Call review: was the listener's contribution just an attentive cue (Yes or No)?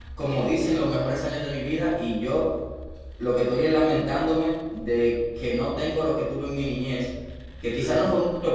Yes